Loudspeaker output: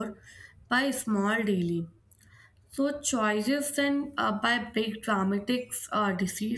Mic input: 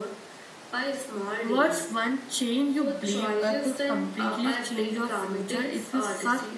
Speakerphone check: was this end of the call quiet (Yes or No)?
No